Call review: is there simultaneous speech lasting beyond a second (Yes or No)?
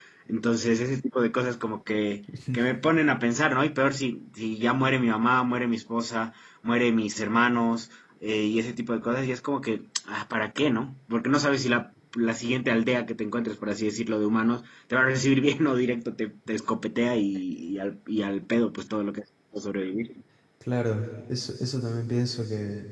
No